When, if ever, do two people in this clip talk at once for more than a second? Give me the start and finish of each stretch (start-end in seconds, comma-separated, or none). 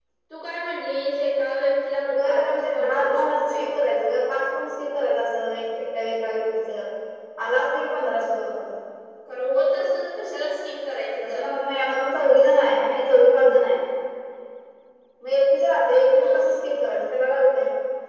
2.1-3.6